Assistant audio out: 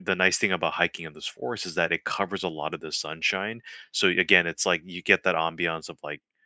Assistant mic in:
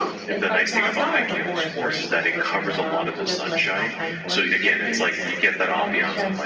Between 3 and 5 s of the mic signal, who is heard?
both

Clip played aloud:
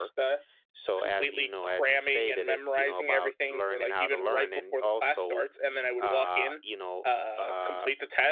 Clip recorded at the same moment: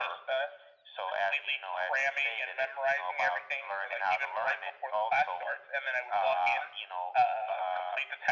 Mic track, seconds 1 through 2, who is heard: echo only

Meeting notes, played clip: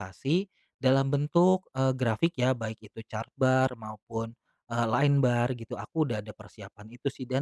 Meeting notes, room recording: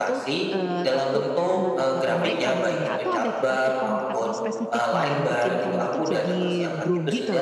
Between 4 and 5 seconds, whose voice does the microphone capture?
both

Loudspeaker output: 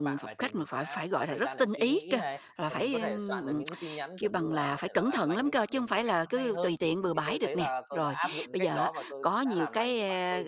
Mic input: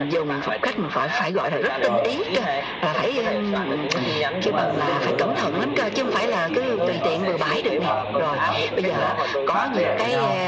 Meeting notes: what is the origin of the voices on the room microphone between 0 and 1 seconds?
echo only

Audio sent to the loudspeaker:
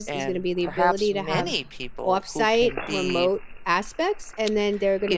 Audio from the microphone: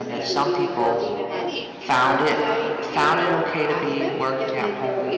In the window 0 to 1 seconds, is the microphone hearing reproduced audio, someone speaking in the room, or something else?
both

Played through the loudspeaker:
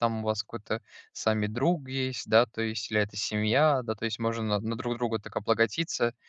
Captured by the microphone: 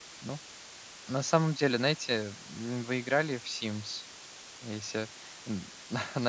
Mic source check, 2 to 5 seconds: user only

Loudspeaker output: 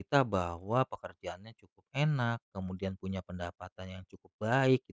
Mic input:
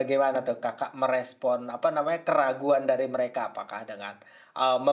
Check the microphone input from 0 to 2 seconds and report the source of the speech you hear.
user only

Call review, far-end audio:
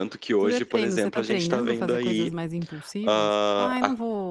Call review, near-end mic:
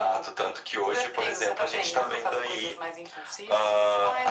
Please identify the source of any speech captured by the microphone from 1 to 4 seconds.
echo only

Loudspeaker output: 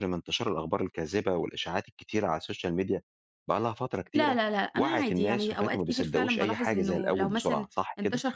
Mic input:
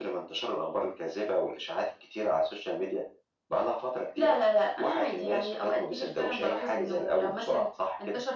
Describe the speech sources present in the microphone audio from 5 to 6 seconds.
echo only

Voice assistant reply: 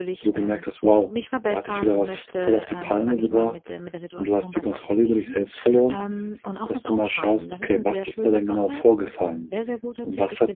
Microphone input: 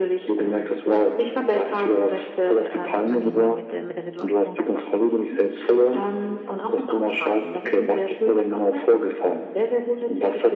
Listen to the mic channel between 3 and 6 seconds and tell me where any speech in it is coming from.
both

